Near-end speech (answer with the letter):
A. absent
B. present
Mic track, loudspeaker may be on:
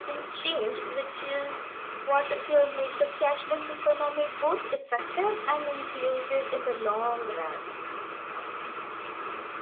A